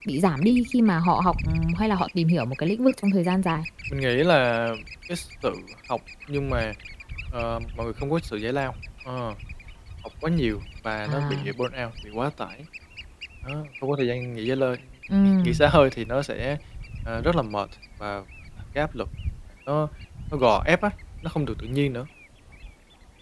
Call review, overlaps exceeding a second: none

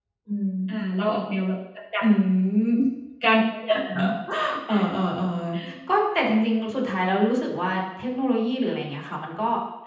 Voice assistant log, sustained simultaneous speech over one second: none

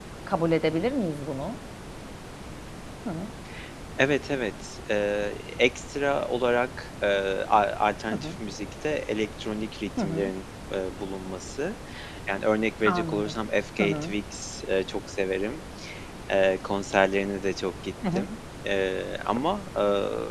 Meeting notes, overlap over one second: none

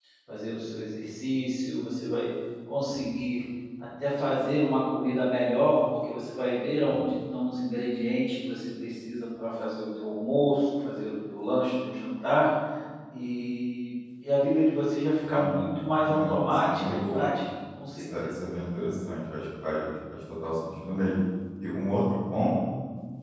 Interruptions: present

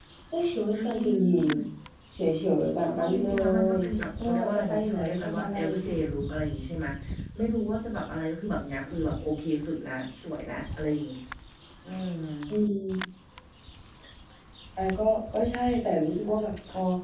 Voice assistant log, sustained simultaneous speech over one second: present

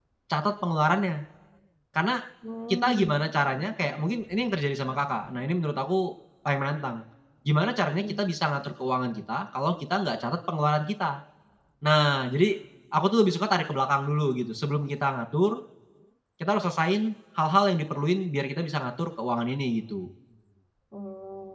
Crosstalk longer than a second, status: none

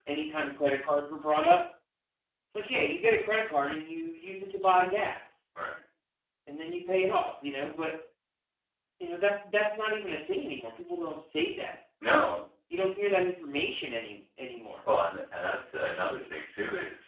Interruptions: none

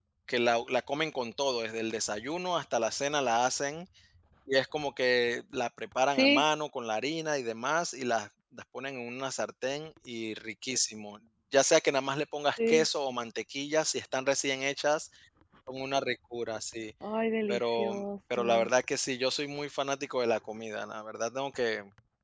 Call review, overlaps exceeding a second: none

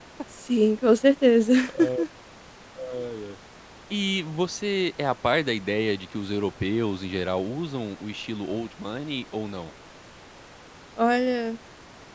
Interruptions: none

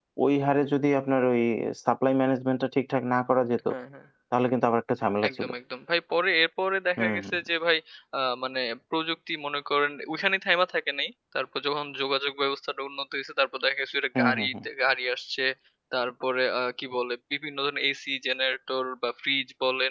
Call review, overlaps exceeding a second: none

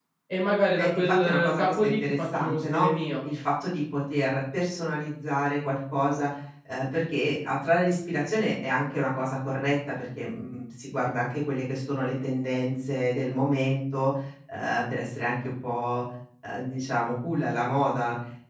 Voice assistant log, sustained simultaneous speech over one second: present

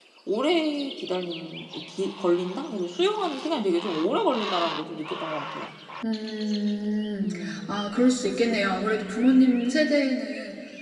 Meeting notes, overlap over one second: none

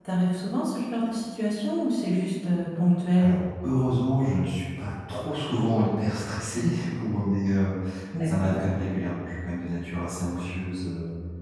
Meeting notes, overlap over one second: none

